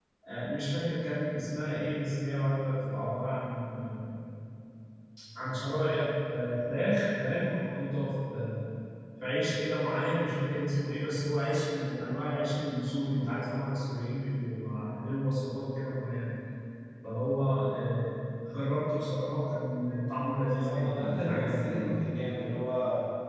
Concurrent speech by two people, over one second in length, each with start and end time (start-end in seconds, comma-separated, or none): 20.4-21.9